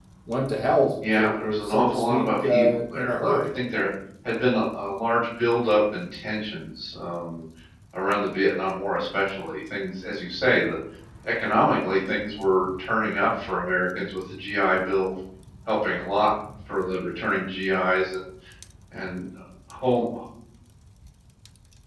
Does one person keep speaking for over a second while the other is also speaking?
Yes, from 1.2 s

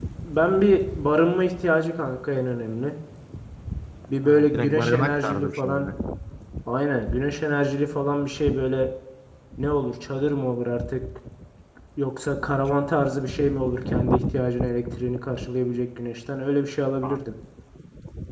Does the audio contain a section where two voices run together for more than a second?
Yes, from 4.2 s

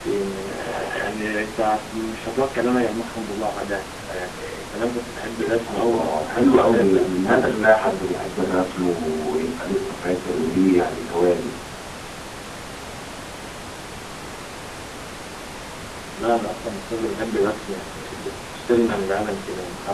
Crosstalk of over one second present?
Yes, from 5.7 s

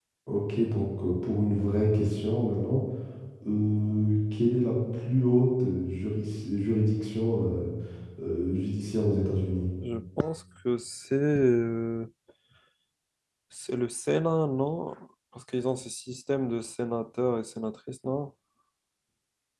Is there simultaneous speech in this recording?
No

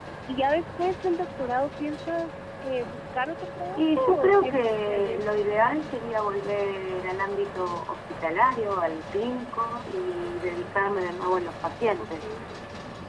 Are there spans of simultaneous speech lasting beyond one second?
Yes, from 3.8 s

